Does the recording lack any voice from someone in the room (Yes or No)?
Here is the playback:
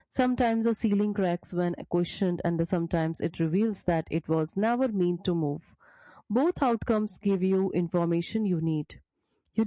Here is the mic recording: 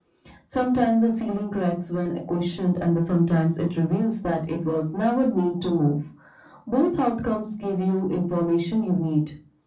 Yes